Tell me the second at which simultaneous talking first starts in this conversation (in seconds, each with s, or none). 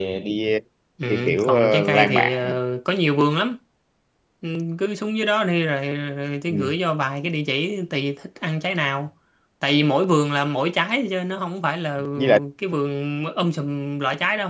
1.1 s